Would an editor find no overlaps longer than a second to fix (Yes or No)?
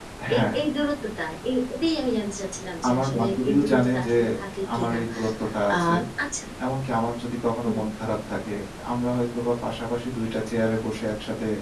No